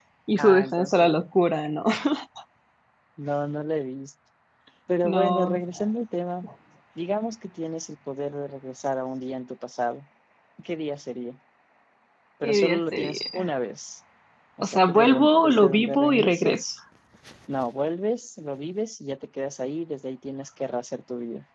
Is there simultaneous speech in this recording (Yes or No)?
Yes